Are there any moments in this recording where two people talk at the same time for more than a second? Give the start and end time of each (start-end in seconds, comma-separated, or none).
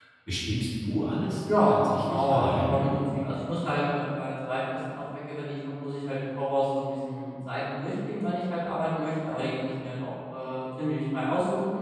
1.6-2.8